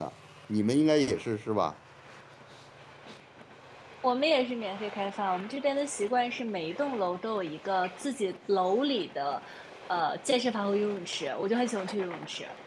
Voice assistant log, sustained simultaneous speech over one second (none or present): none